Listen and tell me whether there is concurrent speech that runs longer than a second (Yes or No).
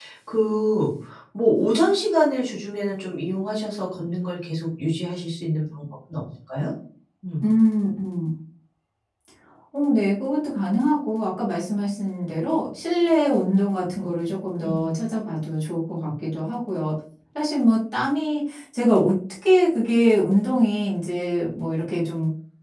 No